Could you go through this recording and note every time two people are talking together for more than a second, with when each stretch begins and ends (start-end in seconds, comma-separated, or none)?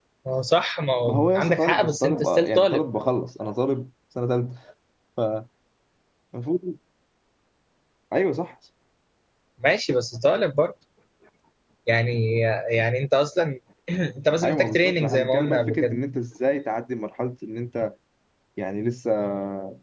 1.1-2.8, 14.4-16.0